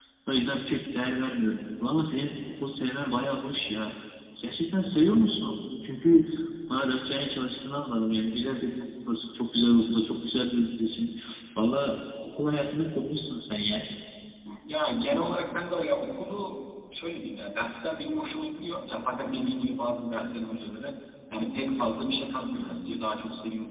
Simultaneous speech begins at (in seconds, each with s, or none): none